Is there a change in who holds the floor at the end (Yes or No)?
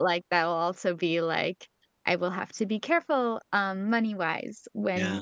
No